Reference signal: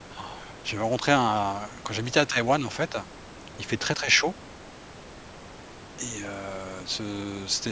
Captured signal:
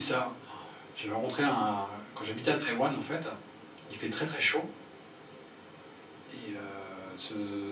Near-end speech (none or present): none